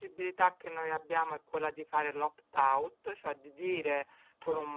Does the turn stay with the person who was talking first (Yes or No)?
Yes